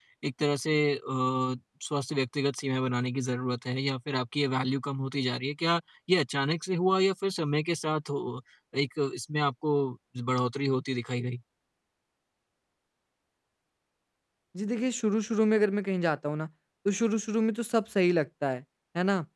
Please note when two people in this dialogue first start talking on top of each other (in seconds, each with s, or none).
none